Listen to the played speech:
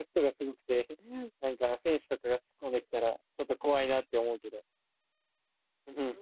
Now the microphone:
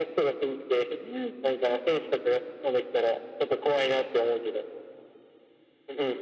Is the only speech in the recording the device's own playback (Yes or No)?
Yes